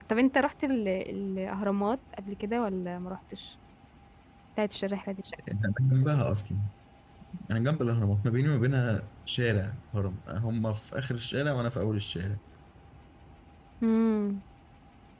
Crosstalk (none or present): none